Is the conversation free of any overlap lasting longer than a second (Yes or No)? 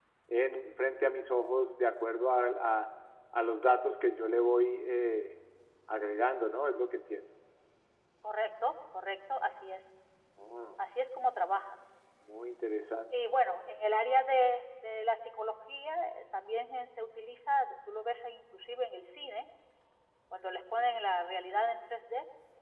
Yes